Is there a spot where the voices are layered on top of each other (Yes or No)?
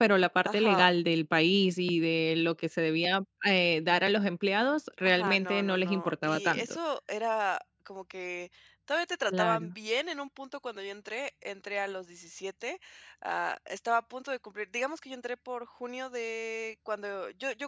Yes